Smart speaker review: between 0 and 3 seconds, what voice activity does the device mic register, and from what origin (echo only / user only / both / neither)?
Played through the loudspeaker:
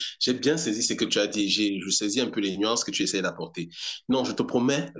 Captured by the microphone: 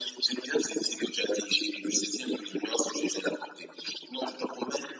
echo only